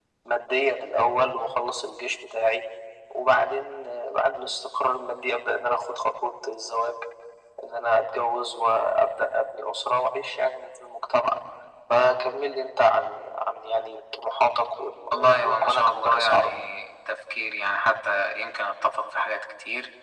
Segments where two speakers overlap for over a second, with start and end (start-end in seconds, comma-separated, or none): 15.1-16.5